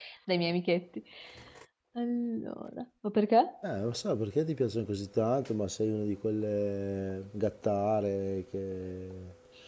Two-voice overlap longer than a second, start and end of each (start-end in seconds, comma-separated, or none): none